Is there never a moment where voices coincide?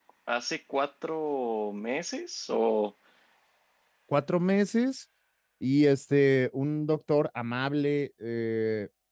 Yes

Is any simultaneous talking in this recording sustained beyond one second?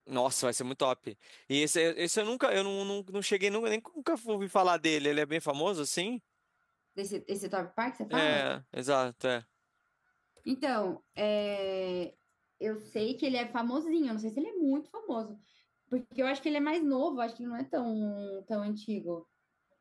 No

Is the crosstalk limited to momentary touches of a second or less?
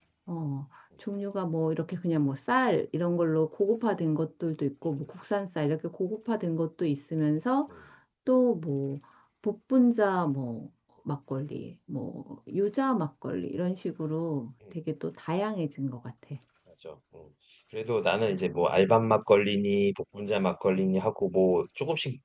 Yes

